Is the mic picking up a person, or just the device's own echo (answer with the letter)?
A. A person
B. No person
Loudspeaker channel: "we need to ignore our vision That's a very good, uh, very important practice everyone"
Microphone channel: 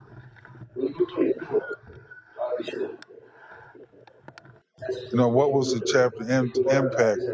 A